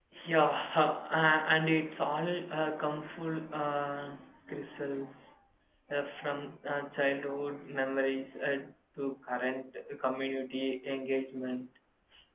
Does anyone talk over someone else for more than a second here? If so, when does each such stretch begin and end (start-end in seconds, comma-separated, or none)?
none